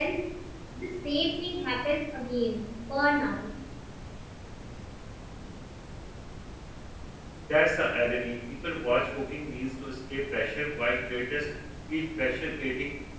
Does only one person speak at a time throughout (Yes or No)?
Yes